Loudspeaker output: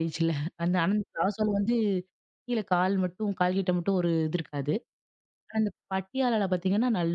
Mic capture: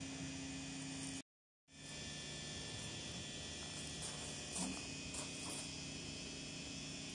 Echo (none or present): none